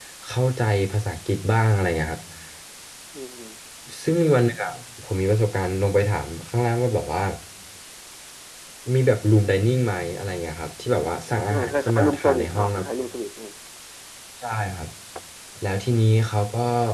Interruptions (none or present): present